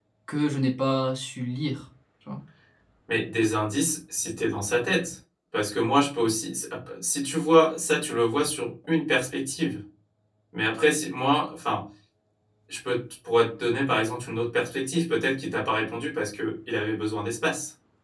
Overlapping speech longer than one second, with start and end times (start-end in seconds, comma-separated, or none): none